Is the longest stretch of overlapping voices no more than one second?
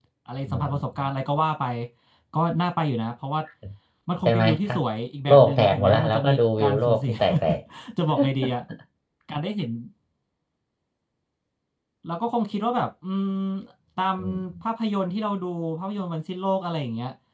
No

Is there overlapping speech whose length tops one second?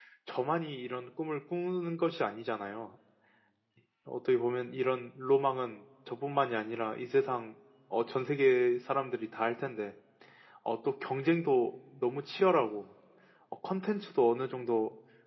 No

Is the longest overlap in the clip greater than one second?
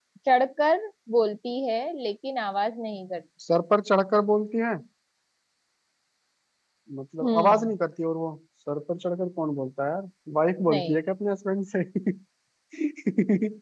No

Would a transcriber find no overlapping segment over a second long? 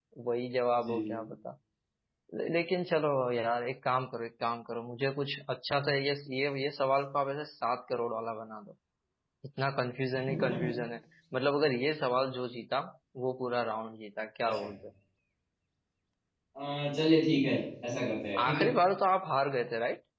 Yes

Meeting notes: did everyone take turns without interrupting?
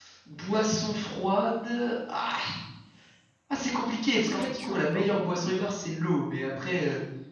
No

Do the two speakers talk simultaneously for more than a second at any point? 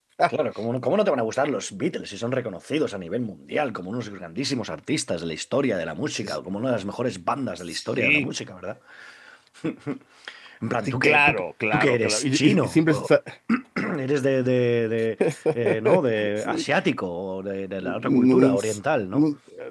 Yes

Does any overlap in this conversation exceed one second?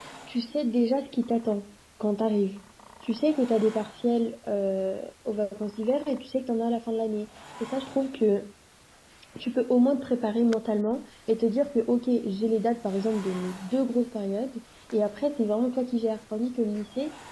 No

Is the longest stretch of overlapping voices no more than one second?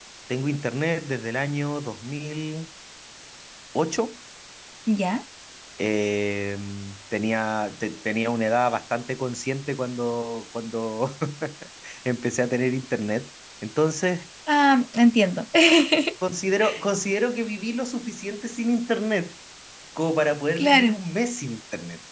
Yes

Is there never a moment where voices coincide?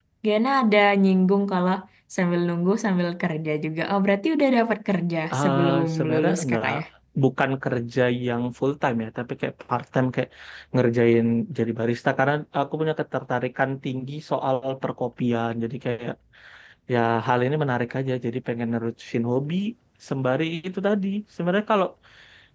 No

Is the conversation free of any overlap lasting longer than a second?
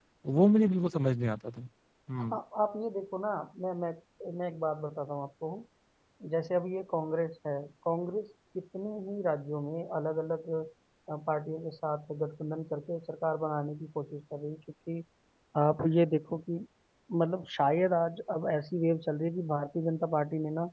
Yes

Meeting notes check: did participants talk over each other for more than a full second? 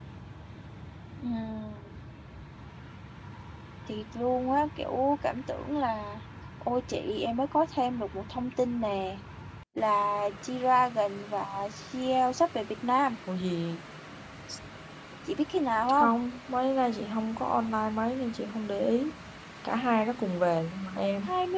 No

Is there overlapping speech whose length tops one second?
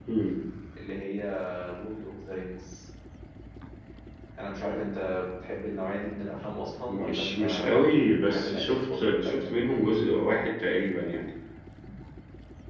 Yes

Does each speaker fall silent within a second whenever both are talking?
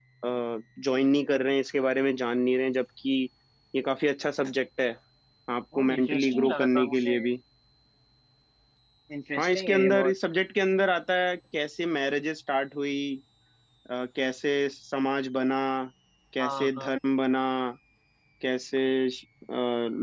No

